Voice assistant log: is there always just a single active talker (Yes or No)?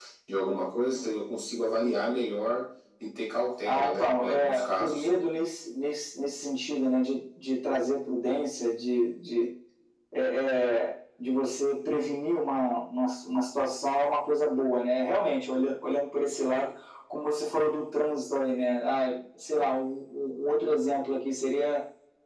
No